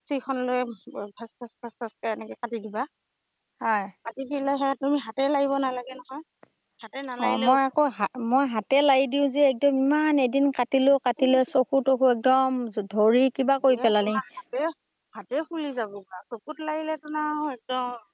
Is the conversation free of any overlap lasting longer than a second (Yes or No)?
Yes